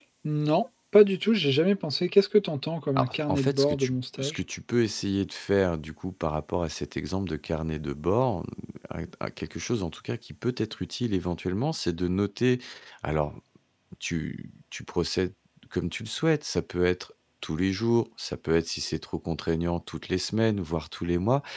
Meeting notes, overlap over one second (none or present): present